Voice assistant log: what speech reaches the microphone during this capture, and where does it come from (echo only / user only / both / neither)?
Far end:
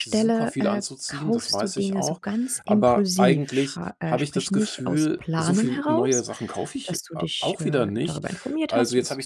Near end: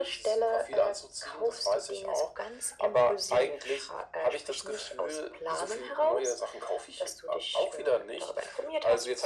echo only